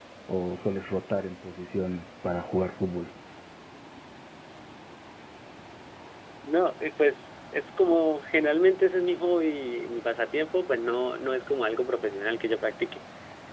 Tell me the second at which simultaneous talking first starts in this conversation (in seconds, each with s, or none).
none